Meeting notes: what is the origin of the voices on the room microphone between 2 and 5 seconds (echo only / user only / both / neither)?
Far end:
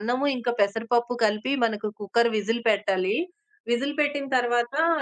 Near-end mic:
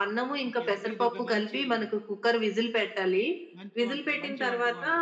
both